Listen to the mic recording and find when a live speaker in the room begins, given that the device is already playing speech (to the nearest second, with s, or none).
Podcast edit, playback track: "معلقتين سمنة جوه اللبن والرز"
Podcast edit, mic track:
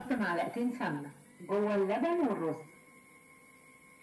none